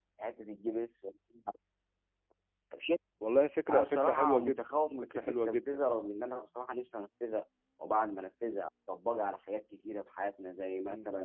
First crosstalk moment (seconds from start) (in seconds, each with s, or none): 3.7 s